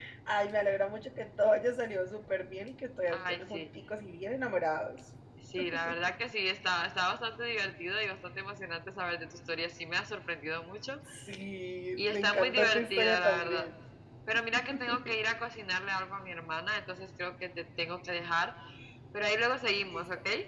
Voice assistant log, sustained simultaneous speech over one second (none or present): present